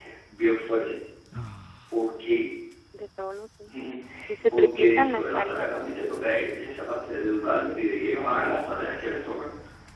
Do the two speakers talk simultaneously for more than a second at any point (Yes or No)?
Yes